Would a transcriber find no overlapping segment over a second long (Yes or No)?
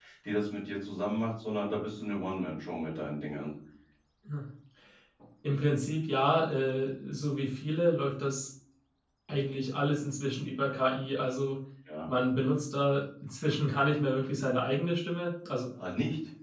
Yes